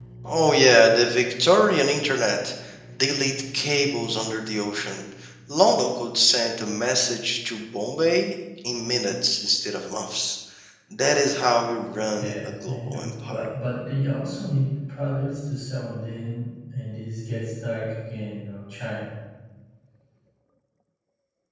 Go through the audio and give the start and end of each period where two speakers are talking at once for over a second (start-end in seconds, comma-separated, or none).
12.2-13.4